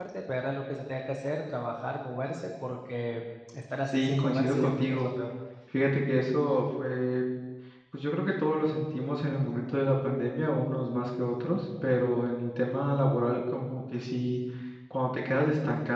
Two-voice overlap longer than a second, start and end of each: 3.9-5.1

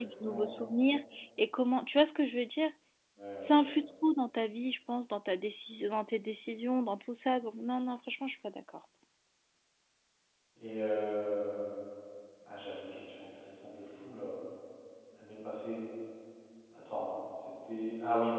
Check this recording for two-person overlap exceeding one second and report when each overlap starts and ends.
none

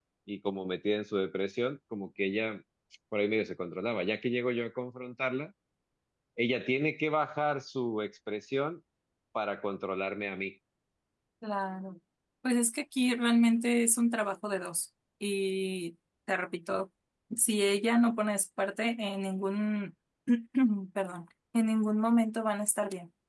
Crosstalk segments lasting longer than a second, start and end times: none

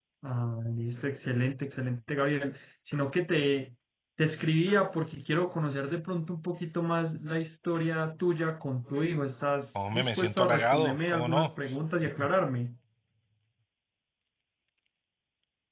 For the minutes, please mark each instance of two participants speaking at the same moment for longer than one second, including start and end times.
9.8-11.5

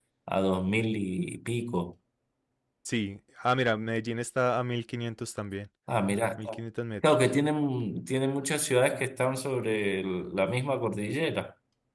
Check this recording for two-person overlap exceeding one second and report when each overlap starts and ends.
none

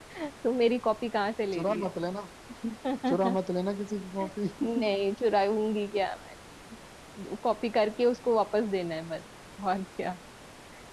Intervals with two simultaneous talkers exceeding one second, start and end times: none

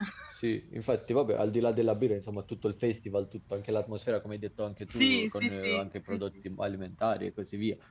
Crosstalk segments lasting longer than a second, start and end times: 4.9-6.2

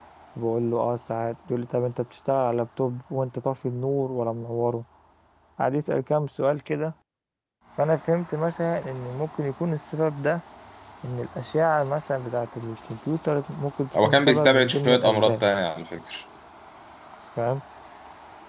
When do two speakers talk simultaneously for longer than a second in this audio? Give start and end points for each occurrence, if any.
14.0-15.4

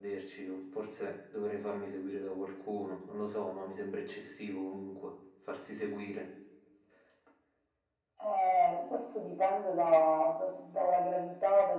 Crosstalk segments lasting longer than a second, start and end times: none

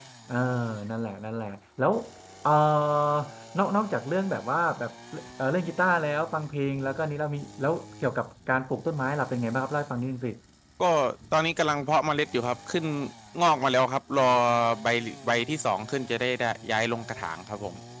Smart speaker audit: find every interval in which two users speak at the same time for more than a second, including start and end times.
none

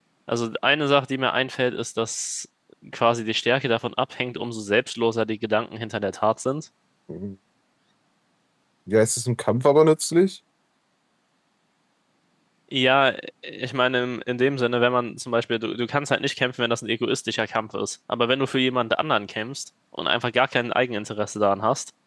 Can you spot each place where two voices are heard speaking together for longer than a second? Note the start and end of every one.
none

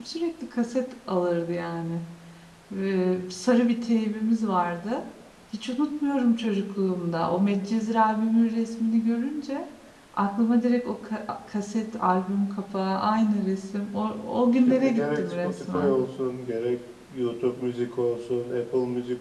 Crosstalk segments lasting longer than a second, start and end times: 14.7-16.0

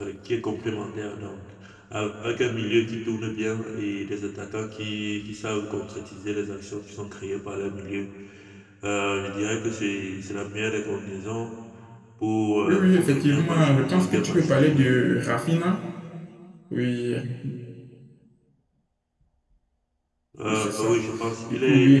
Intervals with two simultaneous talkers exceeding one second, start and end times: 12.6-15.0

